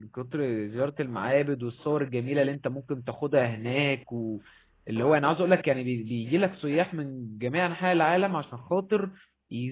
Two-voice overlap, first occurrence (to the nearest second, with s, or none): none